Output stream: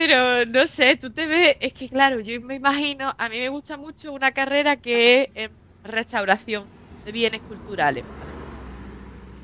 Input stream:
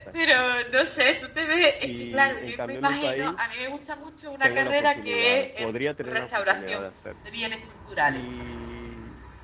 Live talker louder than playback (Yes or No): No